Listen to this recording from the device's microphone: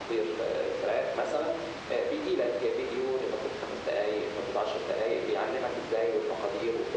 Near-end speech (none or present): none